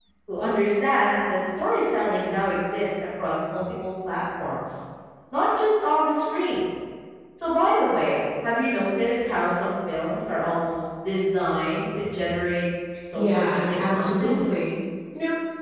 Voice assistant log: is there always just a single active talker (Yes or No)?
No